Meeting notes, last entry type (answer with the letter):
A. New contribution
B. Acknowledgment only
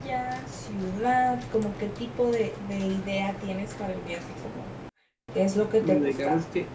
A